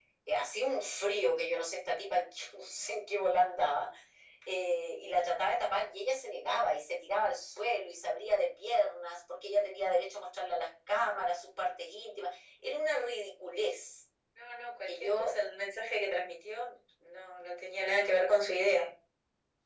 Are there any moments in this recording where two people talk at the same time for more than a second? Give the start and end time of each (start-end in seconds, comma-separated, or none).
none